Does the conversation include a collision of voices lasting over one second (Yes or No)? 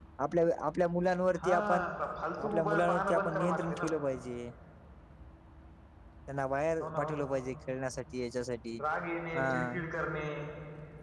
Yes